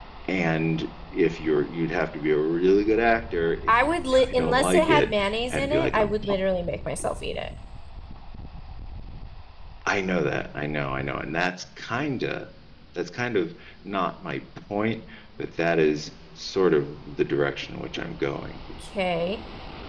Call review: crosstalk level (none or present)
present